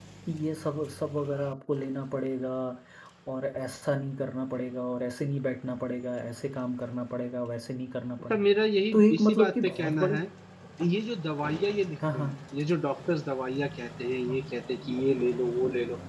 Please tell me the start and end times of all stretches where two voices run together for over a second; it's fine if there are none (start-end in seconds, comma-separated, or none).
8.9-10.2